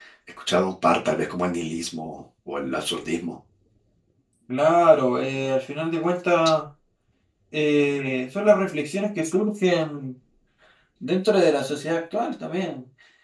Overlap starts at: none

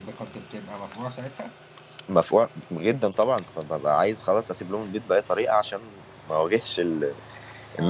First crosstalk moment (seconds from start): none

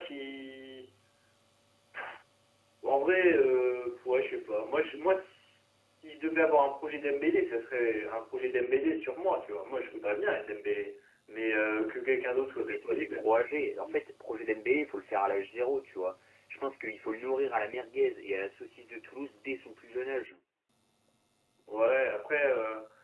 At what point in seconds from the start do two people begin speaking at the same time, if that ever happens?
13 s

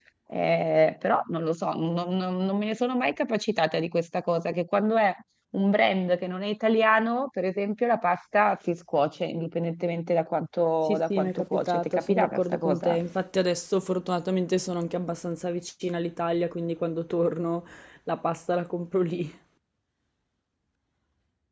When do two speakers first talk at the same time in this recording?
11 s

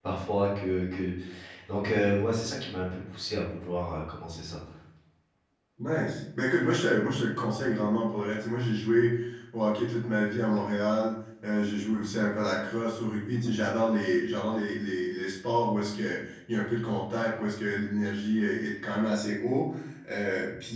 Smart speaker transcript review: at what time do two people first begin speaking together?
none

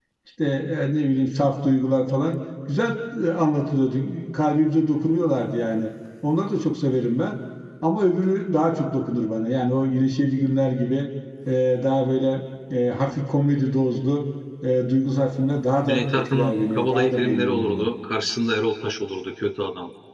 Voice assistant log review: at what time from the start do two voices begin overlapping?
16 s

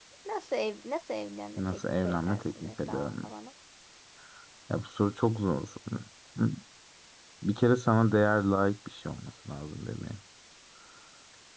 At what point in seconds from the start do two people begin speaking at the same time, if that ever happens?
2 s

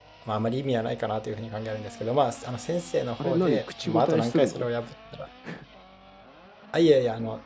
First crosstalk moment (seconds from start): 3 s

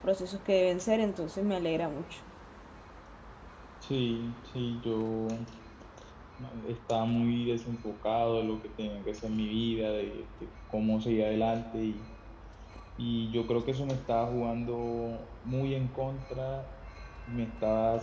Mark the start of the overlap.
none

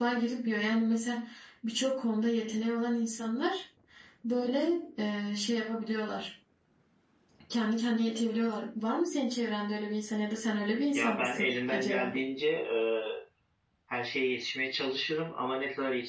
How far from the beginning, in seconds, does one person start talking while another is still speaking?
11 s

